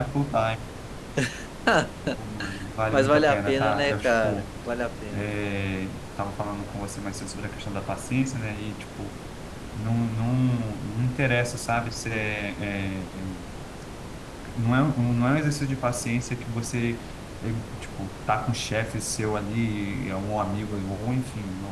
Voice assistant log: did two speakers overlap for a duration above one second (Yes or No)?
Yes